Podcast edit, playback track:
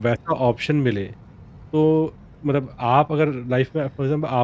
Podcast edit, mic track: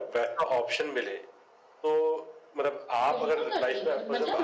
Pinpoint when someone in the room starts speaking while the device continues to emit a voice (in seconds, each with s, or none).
3.1 s